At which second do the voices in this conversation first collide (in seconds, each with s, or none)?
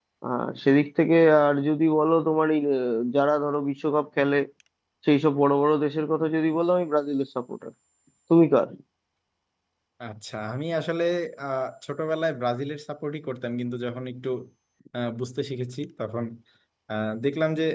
none